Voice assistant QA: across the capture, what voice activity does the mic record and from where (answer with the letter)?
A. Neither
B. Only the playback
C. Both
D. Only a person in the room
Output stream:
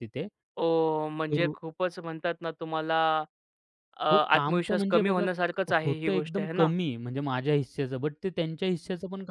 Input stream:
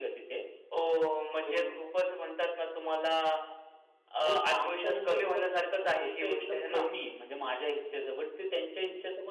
B